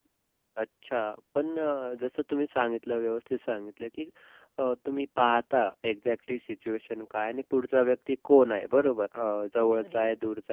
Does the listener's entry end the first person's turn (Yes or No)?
No